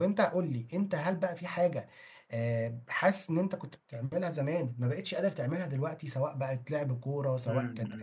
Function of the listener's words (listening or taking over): taking over